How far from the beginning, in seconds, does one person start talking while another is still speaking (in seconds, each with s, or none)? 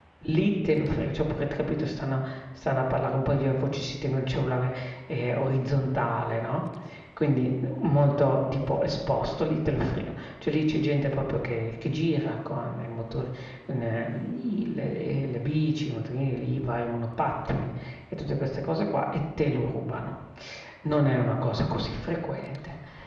none